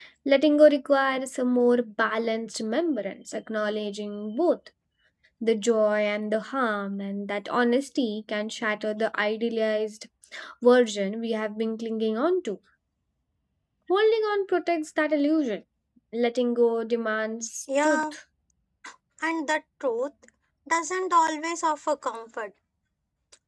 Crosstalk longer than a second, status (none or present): none